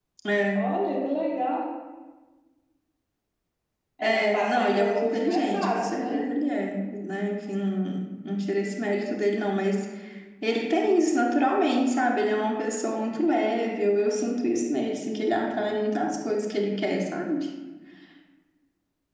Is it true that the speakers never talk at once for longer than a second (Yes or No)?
No